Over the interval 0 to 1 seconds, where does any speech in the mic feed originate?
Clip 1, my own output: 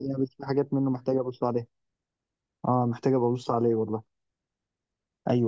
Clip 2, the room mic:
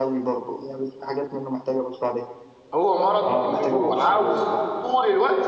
echo only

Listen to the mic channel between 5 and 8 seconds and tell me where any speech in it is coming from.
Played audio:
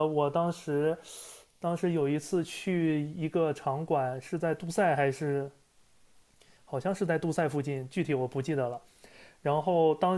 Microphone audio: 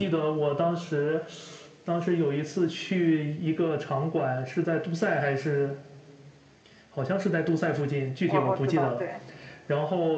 echo only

